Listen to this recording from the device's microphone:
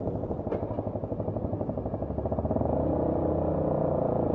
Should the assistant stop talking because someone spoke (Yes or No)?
No